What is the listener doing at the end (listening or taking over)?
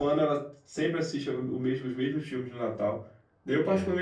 listening